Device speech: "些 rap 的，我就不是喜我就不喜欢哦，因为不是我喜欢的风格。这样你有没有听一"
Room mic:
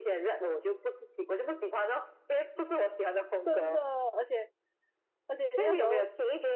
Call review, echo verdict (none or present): present